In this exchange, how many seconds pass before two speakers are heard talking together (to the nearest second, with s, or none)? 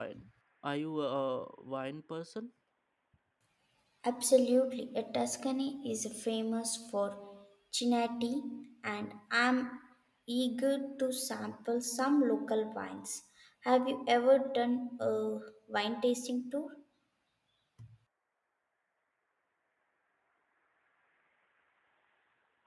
none